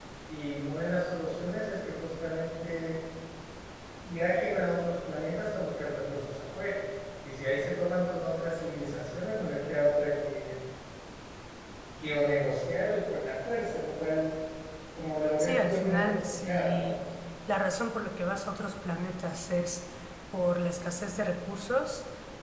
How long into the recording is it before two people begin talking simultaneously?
15.4 s

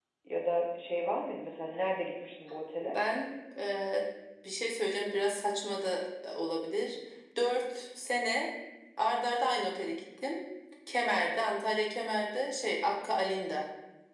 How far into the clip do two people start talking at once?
none

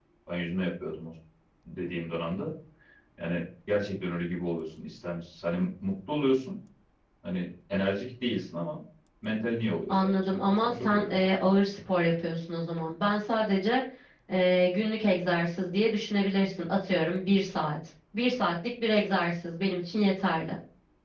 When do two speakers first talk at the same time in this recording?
9.9 s

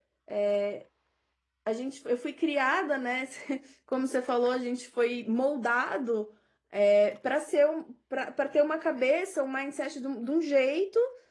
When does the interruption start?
none

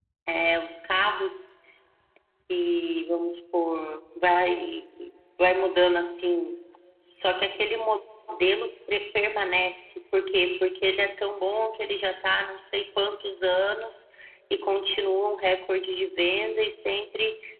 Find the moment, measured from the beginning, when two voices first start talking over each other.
none

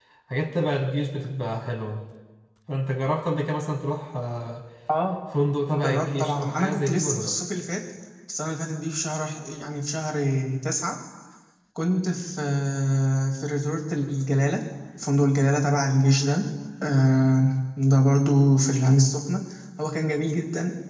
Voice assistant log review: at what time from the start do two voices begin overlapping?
5.7 s

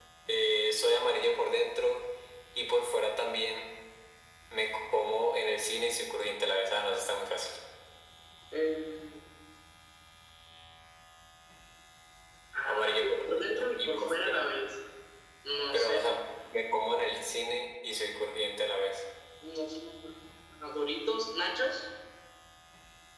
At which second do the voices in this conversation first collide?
12.7 s

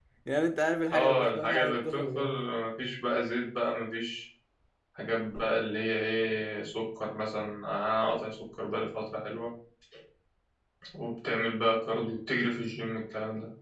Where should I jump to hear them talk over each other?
0.9 s

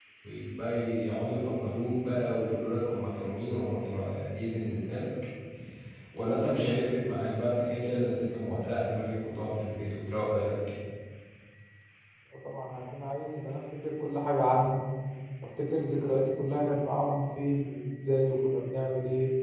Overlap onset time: none

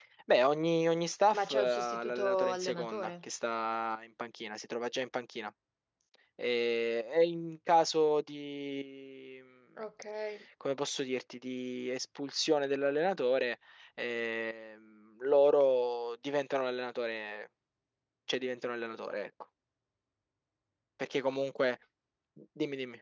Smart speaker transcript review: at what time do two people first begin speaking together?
1.3 s

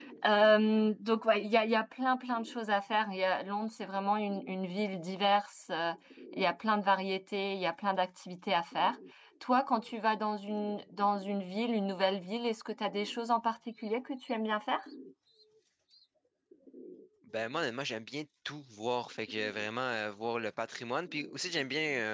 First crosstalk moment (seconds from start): none

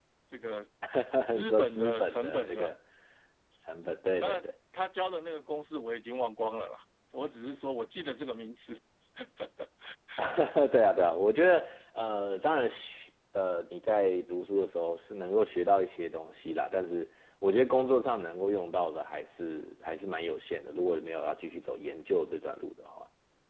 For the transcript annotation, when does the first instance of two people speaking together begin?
1.3 s

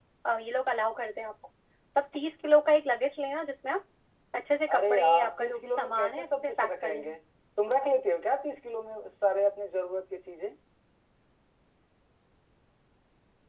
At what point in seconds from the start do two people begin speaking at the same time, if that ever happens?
4.8 s

